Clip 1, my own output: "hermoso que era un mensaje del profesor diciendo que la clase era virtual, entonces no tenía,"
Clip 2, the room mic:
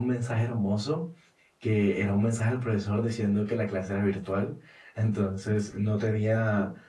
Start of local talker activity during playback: none

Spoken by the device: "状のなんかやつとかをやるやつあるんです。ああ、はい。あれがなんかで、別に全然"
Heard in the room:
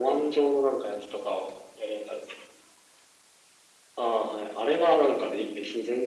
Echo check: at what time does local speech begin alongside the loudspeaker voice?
none

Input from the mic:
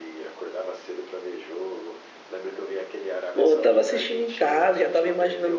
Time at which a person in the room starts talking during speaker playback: 3.3 s

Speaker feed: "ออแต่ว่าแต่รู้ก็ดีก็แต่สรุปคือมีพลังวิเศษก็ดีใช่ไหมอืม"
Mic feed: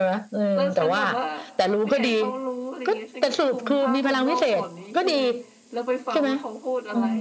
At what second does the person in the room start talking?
0.5 s

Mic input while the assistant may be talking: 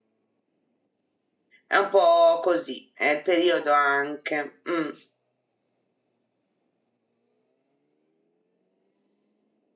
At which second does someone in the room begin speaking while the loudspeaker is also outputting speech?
1.6 s

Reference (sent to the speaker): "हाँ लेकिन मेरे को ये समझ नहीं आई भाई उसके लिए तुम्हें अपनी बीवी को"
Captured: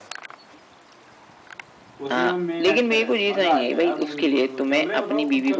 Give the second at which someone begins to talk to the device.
2.0 s

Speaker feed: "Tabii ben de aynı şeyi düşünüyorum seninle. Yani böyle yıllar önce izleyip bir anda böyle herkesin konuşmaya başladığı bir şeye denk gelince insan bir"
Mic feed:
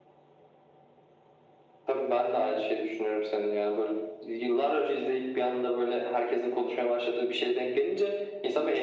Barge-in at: none

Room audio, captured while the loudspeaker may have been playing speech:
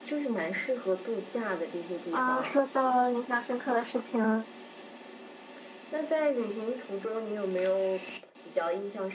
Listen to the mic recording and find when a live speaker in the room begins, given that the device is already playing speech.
2.1 s

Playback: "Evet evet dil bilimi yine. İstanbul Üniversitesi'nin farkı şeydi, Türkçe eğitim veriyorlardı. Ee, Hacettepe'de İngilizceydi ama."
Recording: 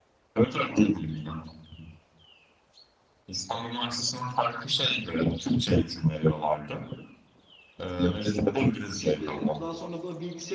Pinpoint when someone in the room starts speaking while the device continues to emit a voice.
9.0 s

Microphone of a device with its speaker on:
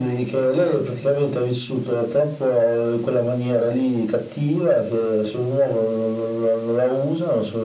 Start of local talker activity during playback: none

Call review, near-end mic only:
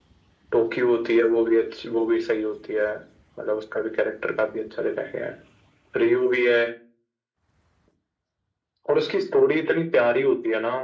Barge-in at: none

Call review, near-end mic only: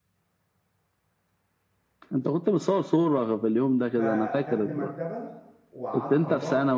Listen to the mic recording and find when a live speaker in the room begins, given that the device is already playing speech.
4.0 s

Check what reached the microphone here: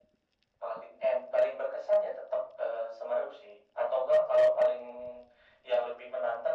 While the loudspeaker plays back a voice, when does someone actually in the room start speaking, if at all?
none

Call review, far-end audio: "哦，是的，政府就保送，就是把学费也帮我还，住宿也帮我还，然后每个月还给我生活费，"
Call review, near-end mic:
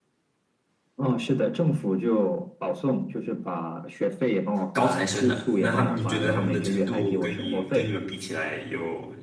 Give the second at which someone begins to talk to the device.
4.7 s

